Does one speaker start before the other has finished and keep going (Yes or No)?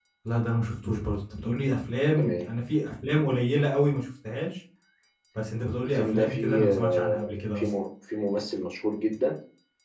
Yes